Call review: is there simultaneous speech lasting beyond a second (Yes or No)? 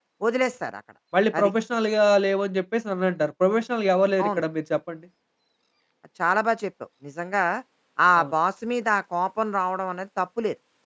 No